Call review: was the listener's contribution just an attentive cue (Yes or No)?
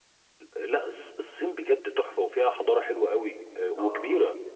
No